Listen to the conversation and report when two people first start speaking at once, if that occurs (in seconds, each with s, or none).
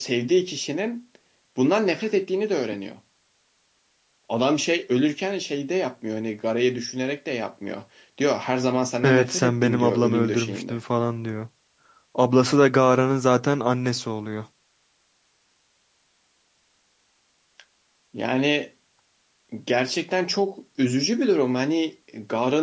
9.0 s